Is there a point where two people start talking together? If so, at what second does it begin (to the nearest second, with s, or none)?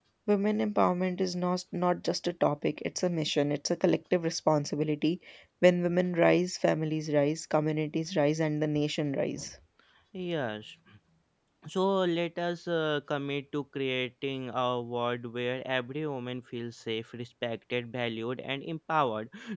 none